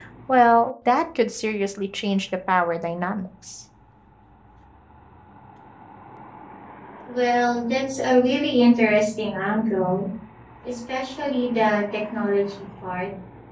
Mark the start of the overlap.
none

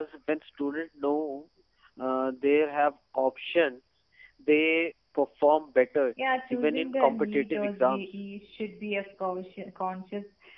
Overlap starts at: 6.5 s

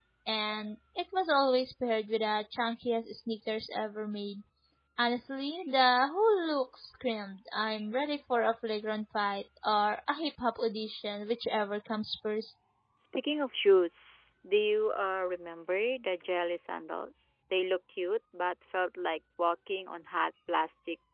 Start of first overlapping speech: none

